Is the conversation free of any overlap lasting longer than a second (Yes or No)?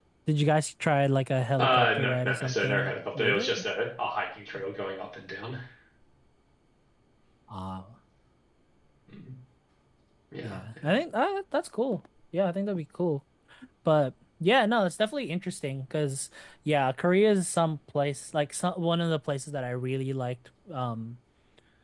No